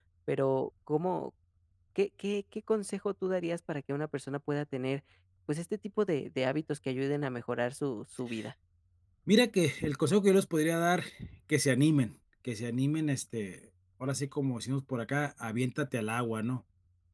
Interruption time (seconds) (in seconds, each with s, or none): none